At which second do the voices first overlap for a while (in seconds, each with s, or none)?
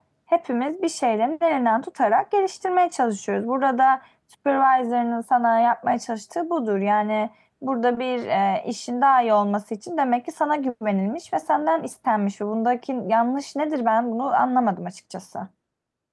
none